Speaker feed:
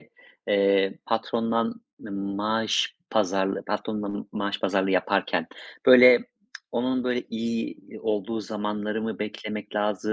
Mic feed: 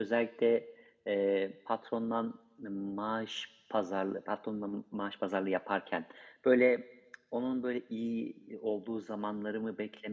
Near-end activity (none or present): none